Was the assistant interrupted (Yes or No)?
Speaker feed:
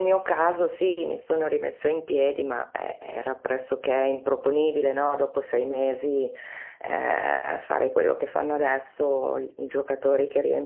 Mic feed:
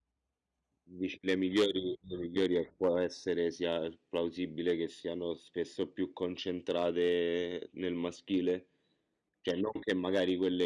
Yes